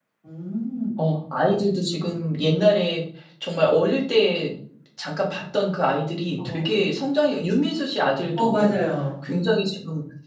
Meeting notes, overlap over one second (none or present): none